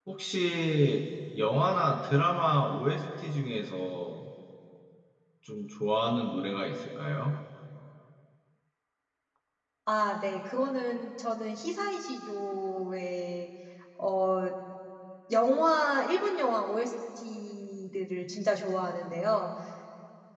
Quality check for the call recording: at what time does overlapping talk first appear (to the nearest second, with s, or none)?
none